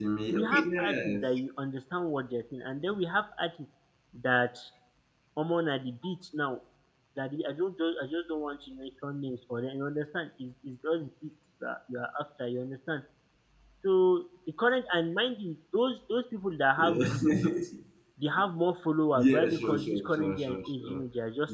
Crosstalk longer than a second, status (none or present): present